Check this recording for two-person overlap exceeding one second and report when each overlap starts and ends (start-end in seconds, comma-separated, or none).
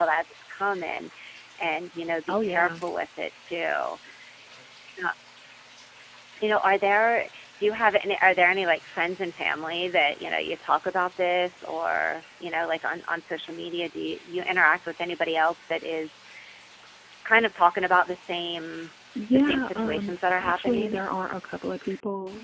19.3-21.0